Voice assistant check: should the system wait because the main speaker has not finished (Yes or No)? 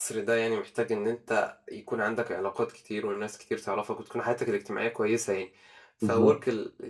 Yes